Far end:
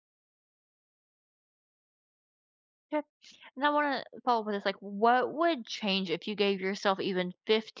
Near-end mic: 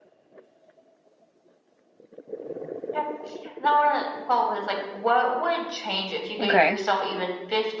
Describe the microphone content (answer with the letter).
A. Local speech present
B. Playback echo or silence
A